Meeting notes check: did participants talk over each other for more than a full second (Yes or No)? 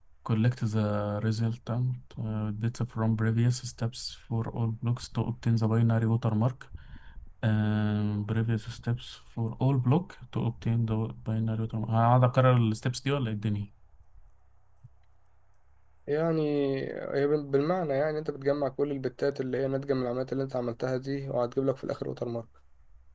No